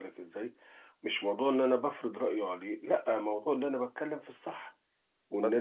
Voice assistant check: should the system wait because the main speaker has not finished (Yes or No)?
No